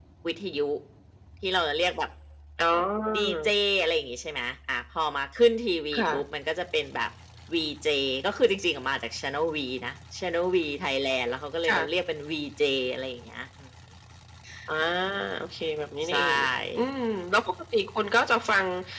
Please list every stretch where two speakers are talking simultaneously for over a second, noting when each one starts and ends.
none

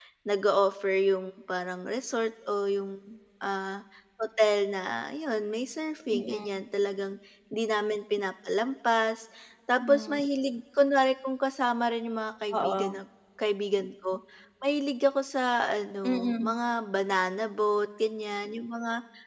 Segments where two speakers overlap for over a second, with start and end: none

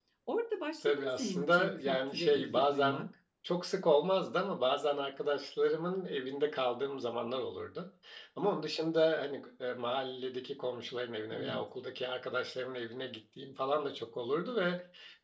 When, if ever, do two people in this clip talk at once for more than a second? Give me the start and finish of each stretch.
0.8-3.1

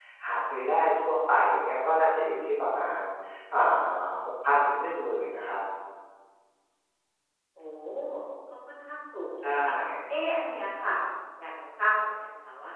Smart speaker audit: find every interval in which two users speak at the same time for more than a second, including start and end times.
none

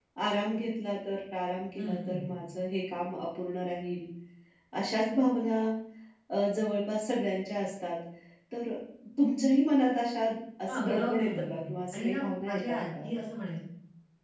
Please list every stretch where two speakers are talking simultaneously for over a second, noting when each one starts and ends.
10.7-13.1

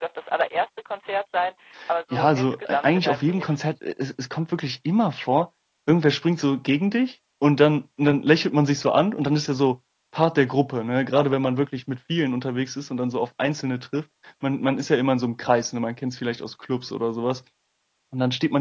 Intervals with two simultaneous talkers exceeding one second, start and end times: 2.1-3.6

